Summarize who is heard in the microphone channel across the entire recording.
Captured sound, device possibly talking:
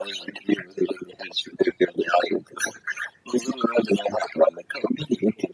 echo only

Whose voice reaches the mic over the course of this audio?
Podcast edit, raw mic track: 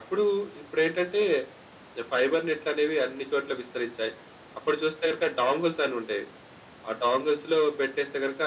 echo only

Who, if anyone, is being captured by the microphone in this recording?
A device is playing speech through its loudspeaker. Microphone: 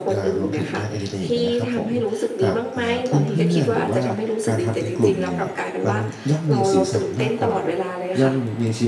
both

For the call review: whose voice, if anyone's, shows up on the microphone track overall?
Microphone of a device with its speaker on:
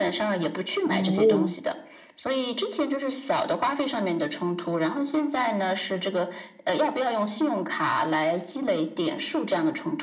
both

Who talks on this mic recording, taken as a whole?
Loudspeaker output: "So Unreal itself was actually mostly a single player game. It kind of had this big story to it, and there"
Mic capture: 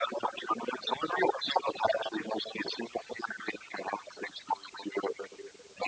echo only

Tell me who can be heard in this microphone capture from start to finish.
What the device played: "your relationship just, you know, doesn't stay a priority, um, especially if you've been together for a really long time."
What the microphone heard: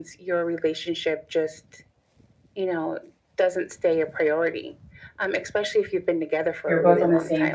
both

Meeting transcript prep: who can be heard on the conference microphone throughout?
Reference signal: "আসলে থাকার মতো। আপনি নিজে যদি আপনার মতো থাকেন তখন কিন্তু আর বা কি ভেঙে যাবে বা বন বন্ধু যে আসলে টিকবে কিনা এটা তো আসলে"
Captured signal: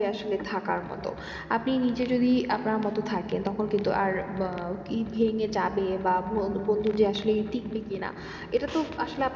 echo only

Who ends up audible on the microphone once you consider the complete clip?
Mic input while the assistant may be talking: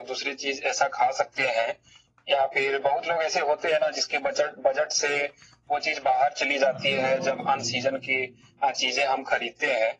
both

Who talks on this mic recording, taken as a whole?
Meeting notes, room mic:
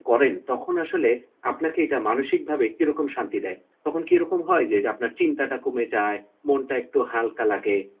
user only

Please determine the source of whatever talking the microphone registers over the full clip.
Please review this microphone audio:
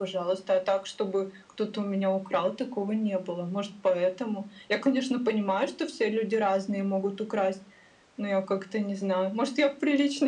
echo only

